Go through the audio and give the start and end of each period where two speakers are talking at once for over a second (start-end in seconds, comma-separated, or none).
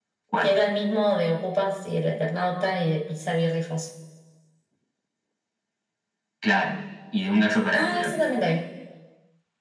none